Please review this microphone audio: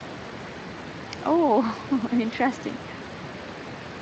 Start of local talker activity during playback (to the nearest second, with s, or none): 1 s